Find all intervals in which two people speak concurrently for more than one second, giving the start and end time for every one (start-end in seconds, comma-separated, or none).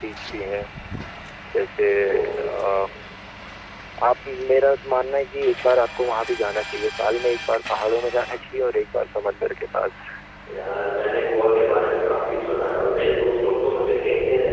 none